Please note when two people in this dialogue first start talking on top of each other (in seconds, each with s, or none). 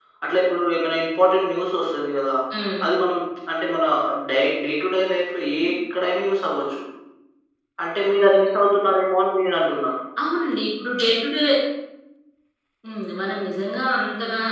none